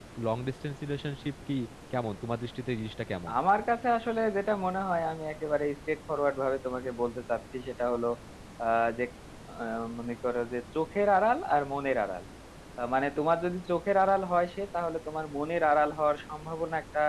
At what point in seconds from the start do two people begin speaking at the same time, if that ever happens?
none

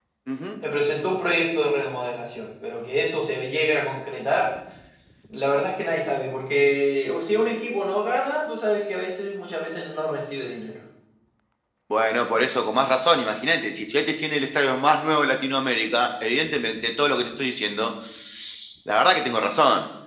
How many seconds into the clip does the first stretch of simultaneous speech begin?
none

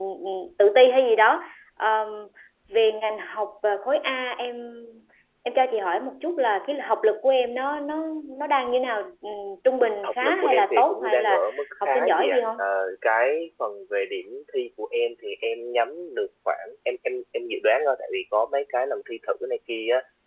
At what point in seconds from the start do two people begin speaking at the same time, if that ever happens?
10.0 s

